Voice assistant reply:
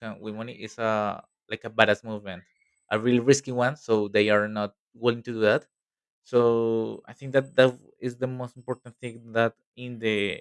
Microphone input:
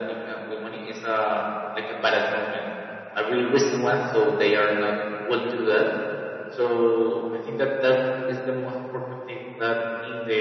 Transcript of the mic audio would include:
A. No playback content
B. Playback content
B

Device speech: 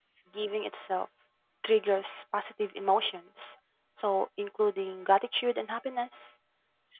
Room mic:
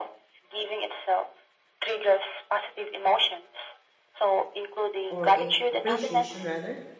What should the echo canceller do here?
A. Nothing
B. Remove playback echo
B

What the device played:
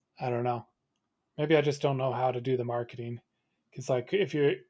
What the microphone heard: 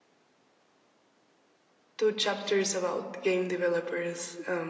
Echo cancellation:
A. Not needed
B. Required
A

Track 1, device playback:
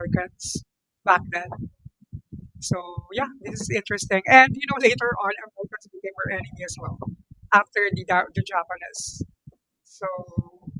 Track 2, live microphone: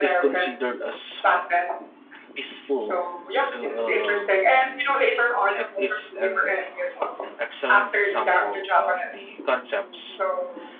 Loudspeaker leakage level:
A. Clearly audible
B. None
A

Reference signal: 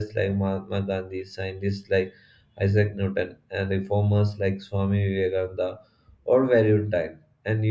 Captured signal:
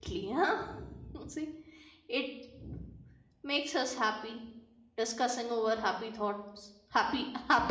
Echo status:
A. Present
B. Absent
B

